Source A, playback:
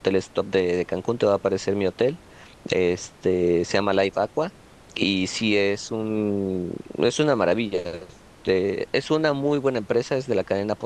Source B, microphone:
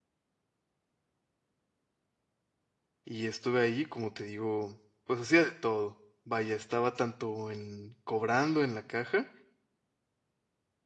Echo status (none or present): none